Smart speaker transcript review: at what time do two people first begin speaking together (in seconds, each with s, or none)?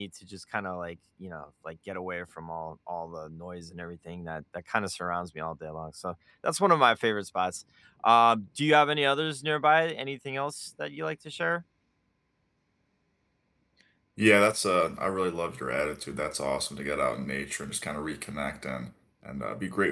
none